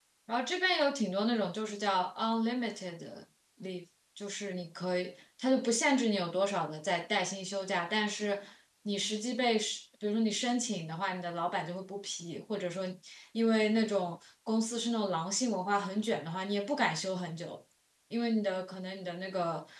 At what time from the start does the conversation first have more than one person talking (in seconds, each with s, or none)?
none